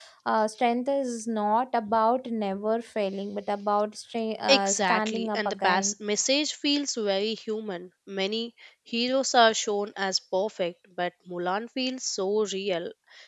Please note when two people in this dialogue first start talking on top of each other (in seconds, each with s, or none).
4.5 s